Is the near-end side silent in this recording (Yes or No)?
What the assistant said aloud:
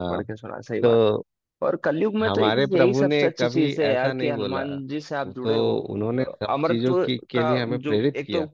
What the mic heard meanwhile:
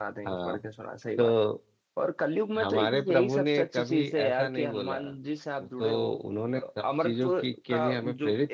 Yes